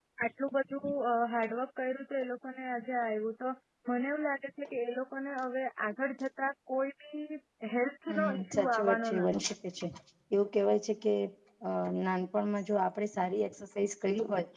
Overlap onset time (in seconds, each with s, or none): 8.1 s